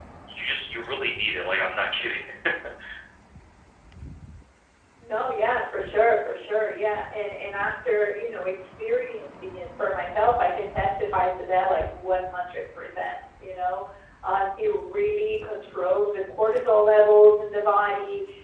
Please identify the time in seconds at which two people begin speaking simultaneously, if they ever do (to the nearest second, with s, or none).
none